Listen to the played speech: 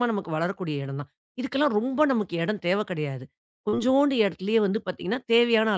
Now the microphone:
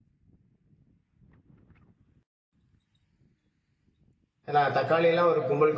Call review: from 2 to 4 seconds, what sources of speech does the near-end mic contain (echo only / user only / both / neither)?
neither